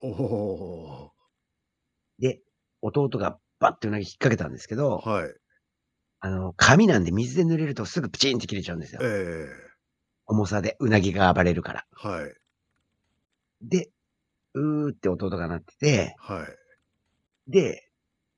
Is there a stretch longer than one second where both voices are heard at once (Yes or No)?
No